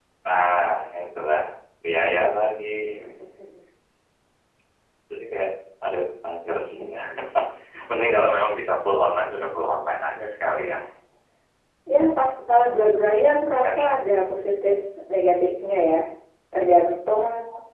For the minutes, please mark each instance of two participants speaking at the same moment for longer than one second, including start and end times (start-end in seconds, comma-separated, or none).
none